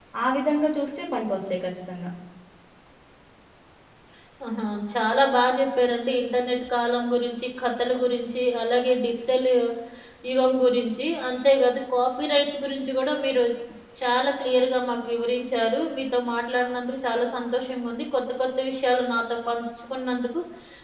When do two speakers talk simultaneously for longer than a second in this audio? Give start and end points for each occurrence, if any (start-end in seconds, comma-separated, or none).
none